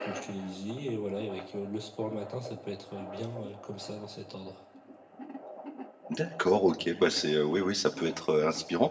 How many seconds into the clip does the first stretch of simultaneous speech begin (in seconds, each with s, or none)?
none